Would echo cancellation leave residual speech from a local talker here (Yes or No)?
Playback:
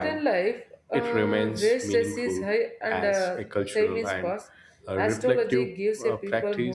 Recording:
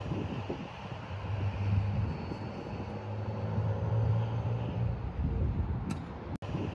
No